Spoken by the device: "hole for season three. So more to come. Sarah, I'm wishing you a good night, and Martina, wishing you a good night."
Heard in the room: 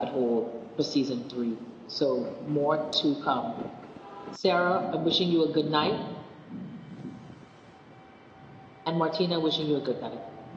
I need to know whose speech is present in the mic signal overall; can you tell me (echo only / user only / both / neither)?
echo only